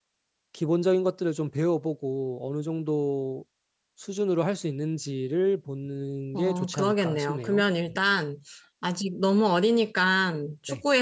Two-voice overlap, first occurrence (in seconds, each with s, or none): 6.3 s